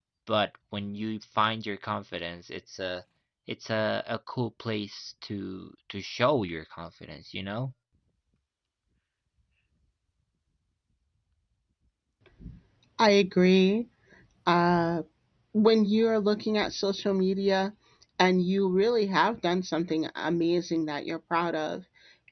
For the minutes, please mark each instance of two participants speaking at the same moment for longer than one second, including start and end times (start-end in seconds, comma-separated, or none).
none